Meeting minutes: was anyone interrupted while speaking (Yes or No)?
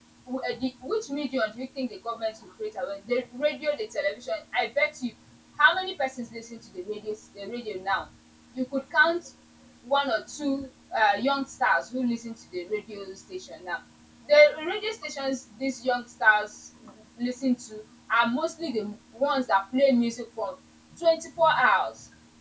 No